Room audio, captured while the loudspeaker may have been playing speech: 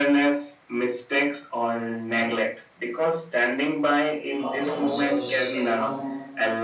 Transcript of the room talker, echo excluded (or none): outcome serves anyone.